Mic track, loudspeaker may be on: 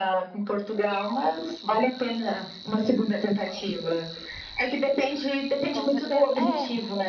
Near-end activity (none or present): present